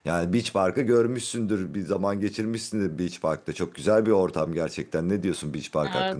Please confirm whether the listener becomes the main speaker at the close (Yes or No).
Yes